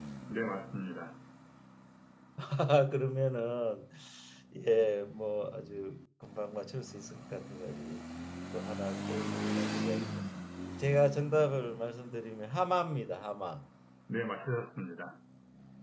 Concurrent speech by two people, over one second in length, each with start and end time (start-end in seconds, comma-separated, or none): none